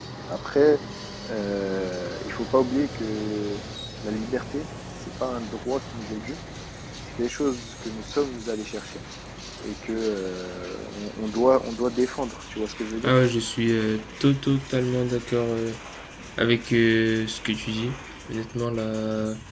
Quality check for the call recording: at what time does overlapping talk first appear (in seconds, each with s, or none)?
none